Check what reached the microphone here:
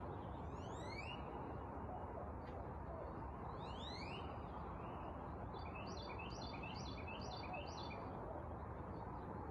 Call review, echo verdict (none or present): none